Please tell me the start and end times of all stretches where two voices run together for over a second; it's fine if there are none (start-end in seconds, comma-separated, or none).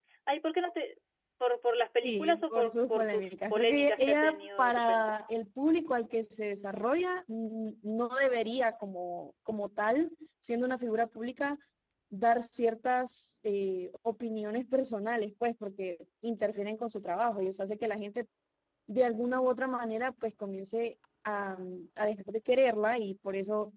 2.0-5.2